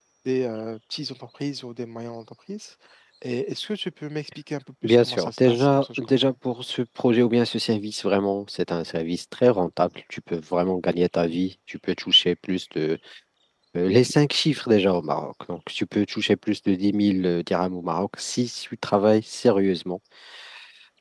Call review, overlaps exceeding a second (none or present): present